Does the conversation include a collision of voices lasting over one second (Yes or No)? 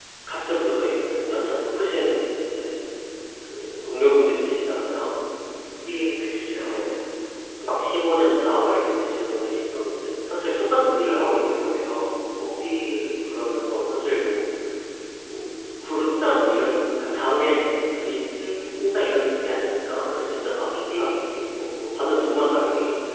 No